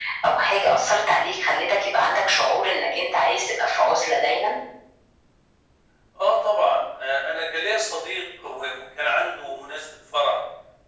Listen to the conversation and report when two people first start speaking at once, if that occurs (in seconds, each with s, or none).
none